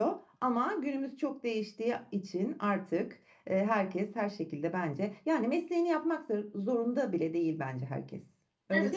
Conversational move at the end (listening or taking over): taking over